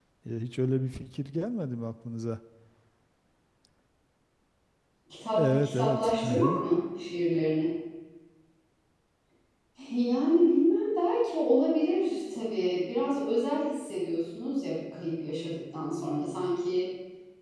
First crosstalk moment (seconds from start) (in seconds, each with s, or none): 5.4 s